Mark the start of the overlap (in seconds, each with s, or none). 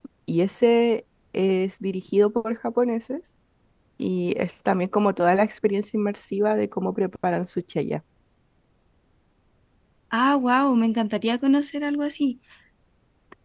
none